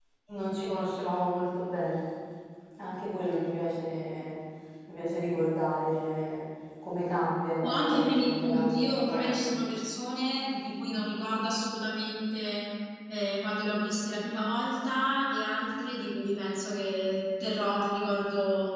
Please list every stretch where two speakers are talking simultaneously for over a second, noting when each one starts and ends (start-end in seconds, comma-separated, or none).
7.6-9.5